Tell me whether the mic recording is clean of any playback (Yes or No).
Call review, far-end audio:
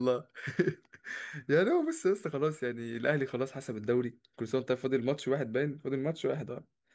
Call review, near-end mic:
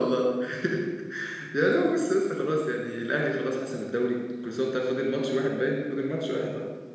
No